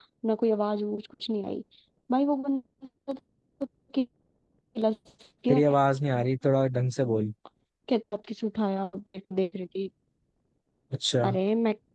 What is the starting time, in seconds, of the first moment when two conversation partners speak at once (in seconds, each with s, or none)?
none